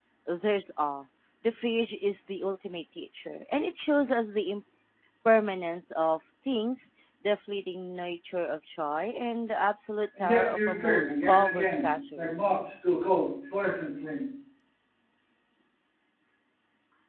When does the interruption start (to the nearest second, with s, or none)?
10 s